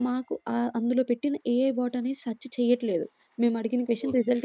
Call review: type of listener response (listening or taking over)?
listening